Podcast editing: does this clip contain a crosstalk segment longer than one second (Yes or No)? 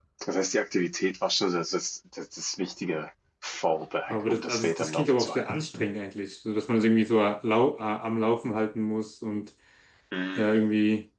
Yes